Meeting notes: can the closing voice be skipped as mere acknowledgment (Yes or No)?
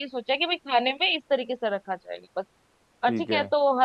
Yes